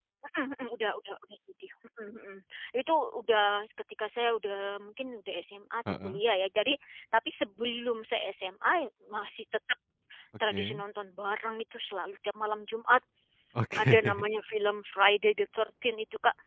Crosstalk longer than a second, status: none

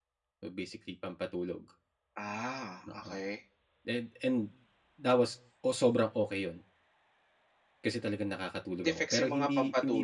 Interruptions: present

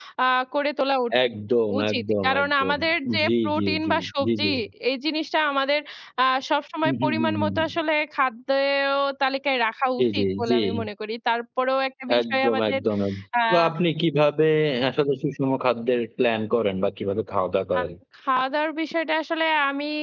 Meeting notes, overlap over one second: present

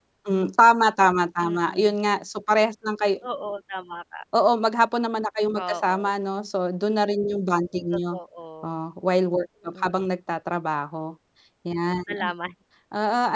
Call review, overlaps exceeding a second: none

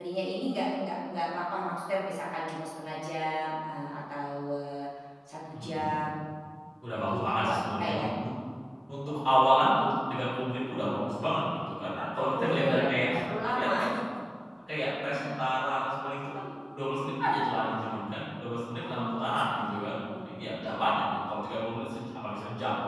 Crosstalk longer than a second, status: present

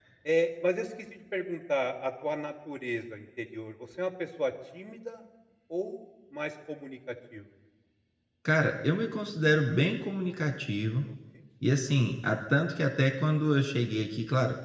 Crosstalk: none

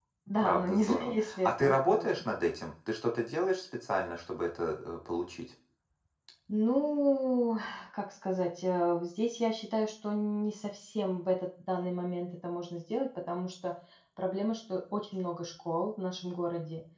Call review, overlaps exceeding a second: present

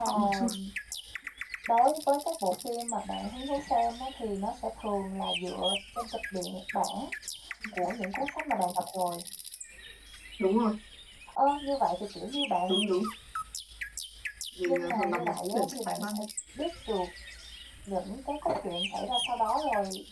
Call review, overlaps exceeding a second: present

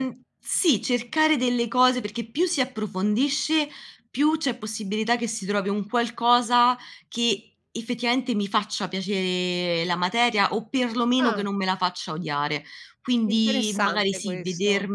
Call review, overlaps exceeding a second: present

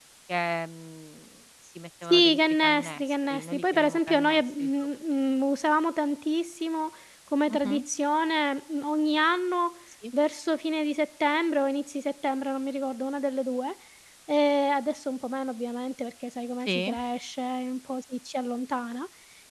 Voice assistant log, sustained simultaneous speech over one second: present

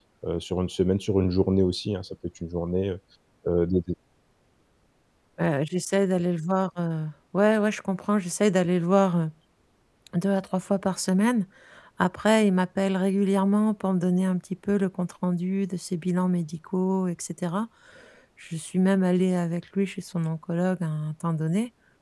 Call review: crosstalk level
none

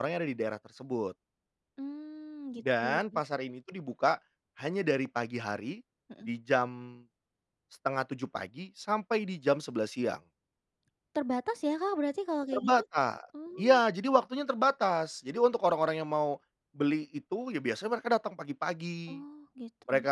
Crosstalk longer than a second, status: none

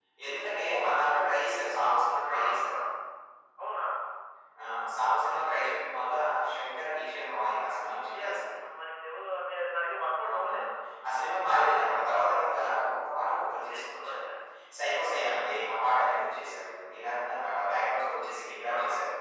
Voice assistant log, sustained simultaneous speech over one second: none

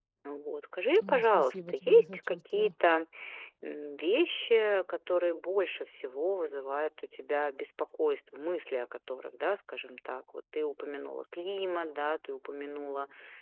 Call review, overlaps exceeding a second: present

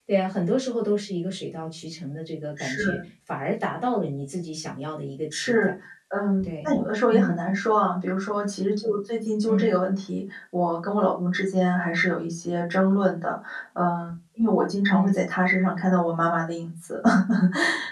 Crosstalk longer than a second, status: none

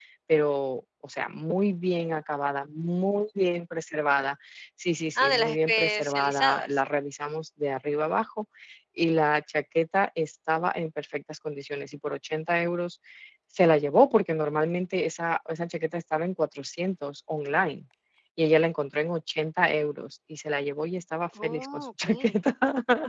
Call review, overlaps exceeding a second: present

